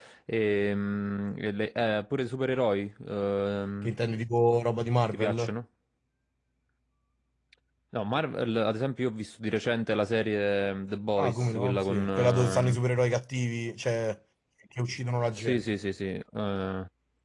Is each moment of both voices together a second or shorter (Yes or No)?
No